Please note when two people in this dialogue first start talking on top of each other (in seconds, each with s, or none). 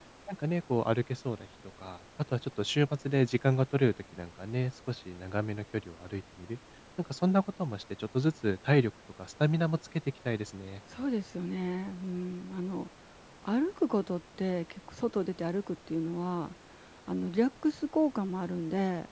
none